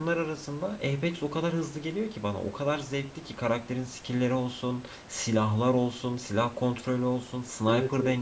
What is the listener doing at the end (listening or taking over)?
taking over